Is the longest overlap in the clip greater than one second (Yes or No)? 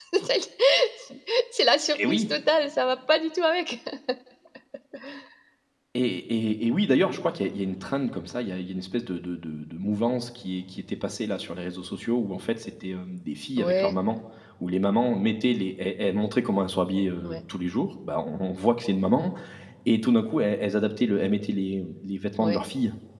No